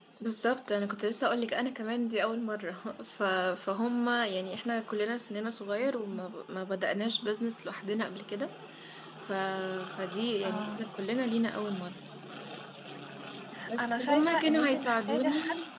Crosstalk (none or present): present